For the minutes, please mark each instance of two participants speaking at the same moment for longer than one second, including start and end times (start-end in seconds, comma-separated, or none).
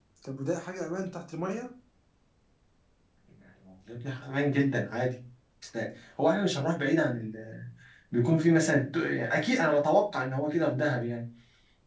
none